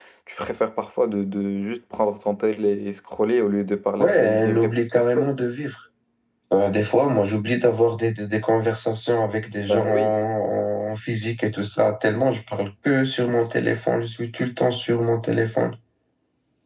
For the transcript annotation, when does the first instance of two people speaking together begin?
4.0 s

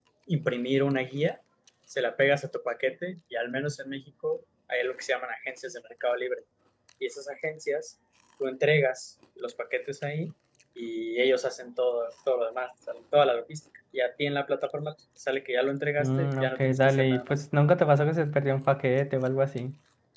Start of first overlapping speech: 16.0 s

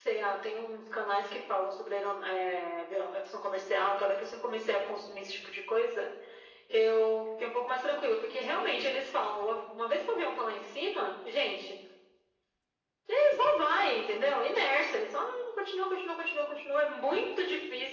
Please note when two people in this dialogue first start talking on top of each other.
none

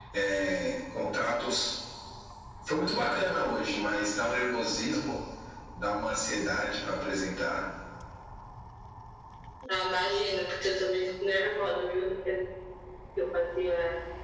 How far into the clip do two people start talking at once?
none

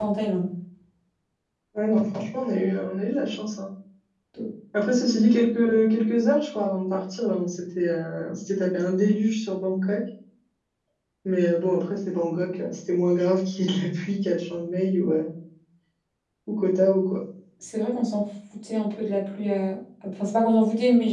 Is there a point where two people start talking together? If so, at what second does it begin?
none

